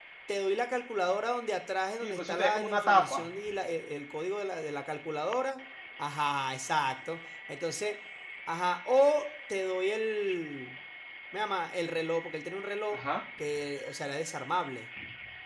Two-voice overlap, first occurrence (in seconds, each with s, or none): 2.0 s